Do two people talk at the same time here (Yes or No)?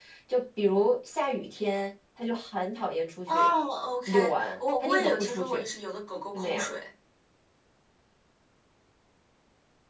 Yes